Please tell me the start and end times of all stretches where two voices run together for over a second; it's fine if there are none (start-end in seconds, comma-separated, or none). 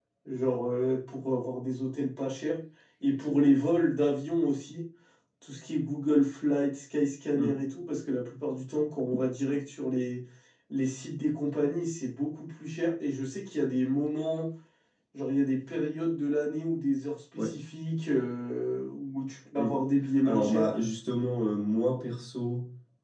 none